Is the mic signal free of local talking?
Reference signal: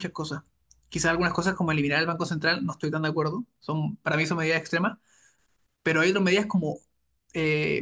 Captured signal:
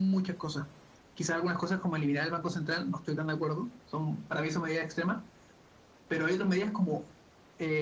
Yes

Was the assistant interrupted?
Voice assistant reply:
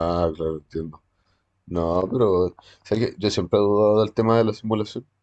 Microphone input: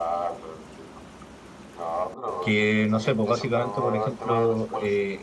Yes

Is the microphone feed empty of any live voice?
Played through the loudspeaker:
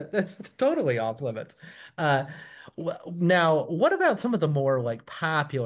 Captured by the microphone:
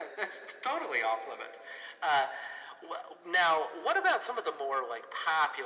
Yes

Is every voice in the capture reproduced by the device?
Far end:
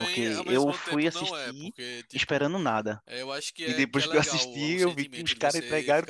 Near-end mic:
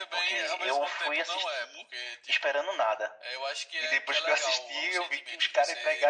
Yes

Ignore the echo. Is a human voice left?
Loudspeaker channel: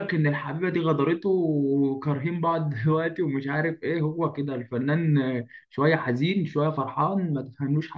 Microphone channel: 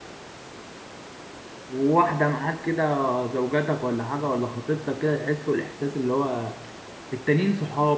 Yes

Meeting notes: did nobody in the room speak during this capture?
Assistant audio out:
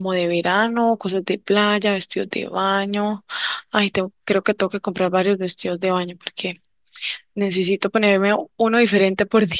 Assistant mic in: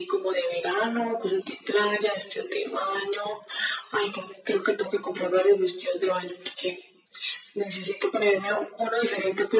Yes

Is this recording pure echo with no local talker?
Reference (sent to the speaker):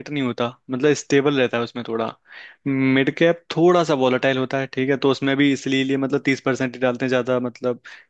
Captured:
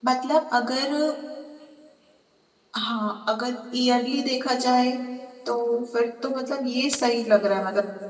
No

